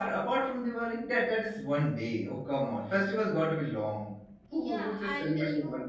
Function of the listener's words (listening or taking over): taking over